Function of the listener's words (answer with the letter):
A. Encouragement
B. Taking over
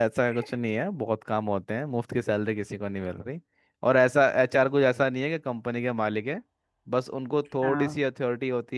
A